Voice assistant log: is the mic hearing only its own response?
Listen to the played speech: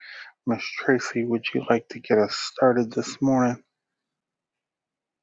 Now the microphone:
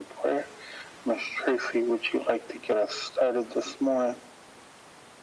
Yes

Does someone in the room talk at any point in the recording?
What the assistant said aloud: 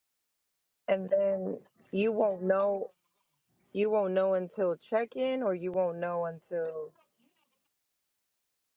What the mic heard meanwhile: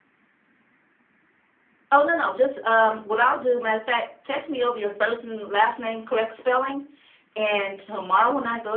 Yes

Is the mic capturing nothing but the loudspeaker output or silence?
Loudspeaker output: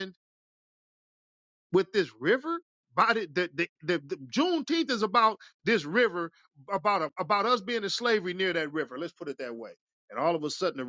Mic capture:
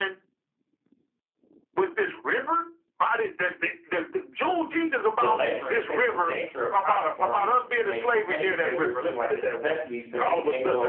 No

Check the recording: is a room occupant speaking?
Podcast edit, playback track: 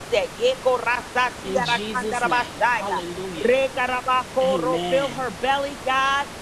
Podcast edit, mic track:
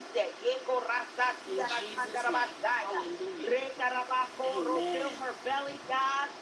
No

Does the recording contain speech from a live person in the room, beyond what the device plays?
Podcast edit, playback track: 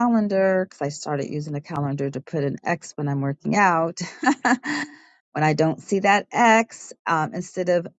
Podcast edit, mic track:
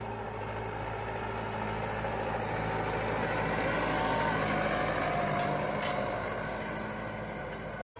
No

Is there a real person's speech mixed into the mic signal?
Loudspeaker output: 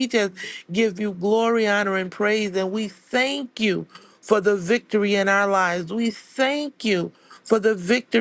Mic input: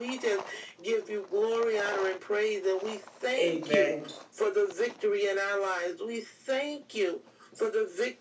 Yes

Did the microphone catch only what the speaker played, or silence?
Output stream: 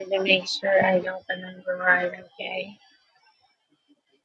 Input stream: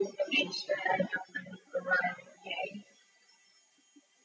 Yes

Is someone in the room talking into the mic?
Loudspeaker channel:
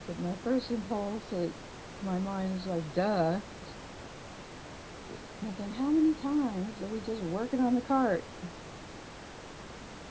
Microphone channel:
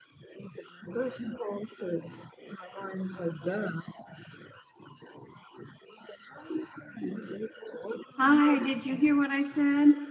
Yes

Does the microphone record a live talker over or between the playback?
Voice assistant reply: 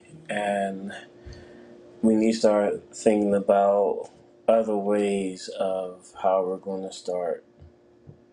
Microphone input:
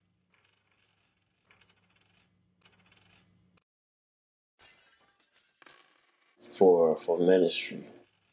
Yes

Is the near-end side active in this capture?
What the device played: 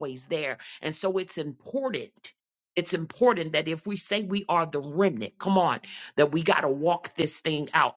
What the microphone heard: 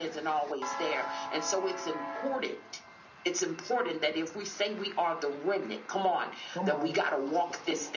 Yes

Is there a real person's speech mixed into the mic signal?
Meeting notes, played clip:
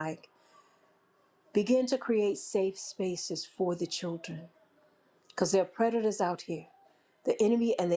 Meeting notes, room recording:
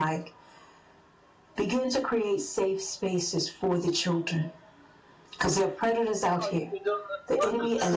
Yes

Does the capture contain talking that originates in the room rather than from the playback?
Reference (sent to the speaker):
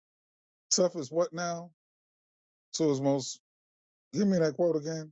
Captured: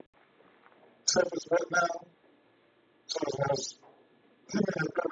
No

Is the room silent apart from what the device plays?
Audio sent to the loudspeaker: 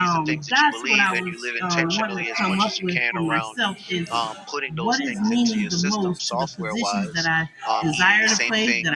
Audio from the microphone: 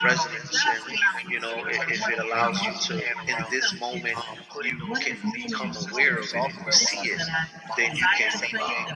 No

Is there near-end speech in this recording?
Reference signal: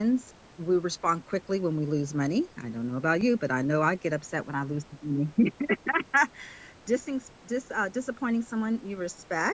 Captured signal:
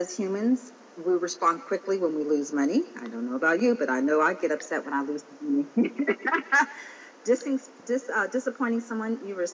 No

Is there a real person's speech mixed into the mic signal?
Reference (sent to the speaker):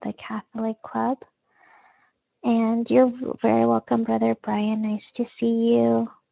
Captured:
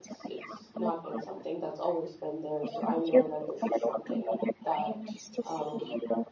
Yes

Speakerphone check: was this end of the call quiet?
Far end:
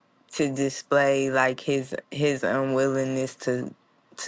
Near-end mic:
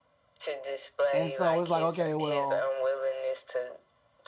No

